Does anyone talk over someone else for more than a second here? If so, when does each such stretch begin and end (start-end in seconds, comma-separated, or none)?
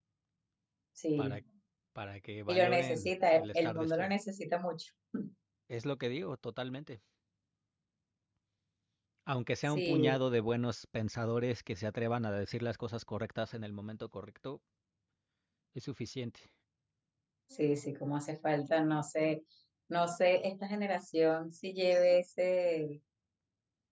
2.5-4.1